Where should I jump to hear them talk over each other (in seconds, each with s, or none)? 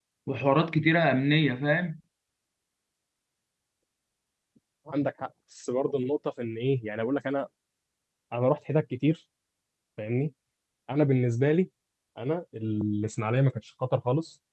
none